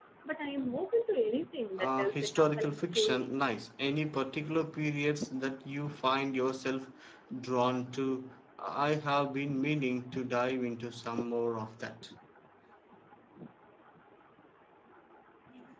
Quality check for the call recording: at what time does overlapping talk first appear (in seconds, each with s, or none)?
1.8 s